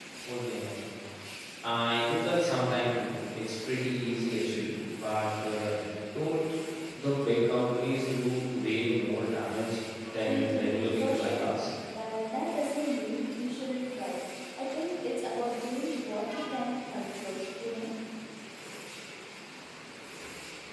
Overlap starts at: 10.2 s

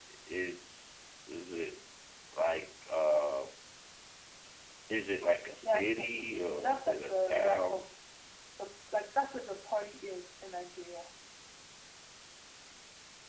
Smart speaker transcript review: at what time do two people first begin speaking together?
5.6 s

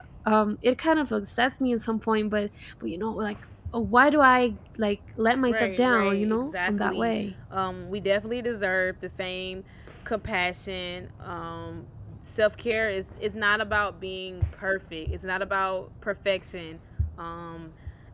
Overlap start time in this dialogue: 5.4 s

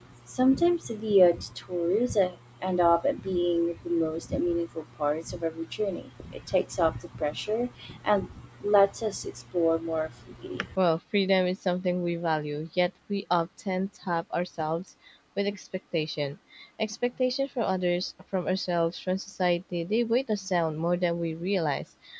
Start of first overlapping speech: none

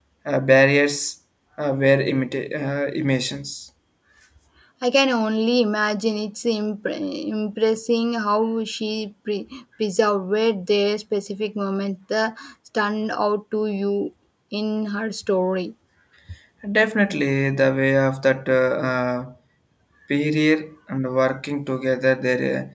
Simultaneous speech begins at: none

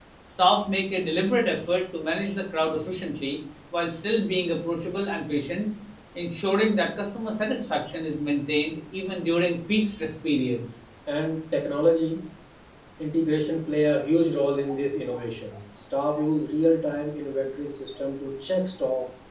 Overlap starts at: none

